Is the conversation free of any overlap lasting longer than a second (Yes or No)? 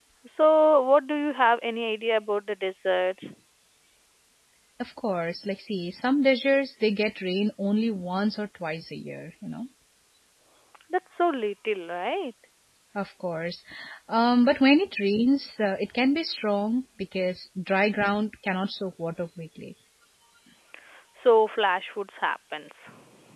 Yes